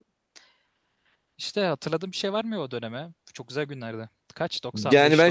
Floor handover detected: Yes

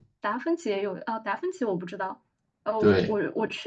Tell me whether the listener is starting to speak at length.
No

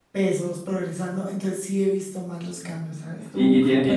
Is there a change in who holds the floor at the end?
Yes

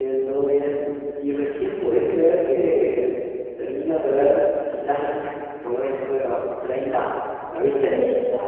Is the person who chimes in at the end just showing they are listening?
No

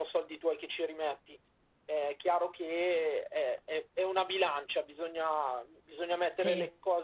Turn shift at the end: No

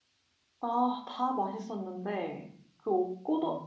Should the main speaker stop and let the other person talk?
No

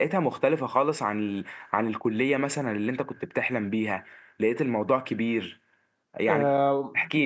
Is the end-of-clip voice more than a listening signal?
Yes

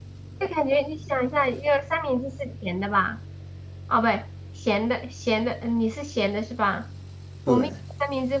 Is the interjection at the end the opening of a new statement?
No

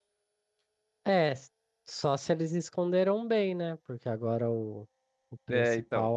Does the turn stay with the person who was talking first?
Yes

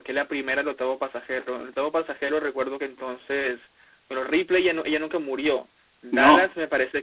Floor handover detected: No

